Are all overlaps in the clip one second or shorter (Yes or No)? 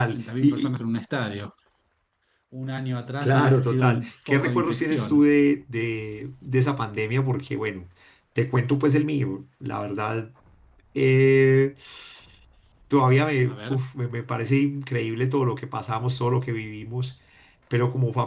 No